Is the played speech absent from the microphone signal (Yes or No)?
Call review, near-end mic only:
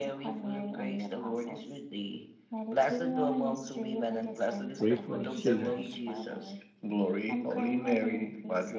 No